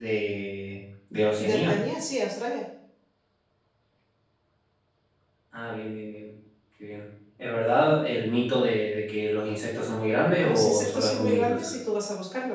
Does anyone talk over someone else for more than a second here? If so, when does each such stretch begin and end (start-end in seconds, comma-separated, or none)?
10.4-11.7